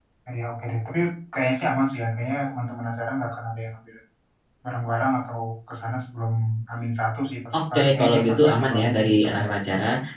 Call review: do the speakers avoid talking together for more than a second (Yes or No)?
No